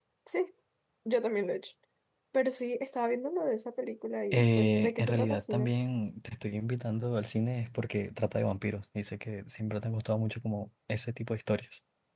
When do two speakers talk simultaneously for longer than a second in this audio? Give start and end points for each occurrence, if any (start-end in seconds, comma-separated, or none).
4.3-5.7